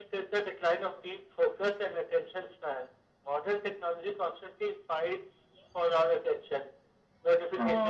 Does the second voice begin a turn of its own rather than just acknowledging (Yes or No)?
No